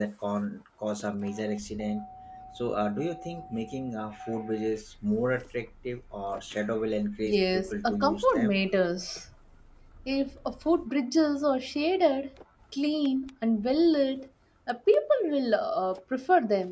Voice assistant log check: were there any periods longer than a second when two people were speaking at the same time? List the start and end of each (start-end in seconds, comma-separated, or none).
7.3-8.6